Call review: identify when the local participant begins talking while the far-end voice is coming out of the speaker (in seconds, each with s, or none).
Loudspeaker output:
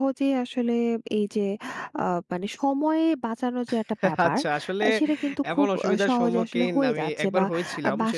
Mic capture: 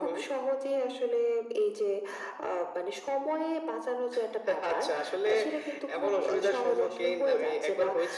none